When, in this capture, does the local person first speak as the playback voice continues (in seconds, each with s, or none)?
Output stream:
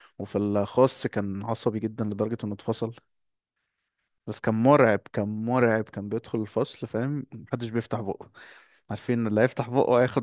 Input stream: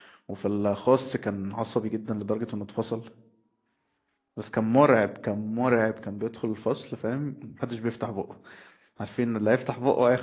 none